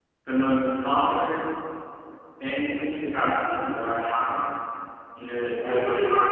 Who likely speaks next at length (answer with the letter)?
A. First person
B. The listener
A